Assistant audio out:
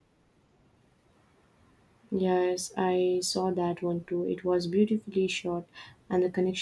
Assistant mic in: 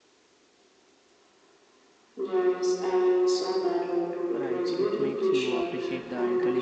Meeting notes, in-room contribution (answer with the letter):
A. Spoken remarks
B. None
A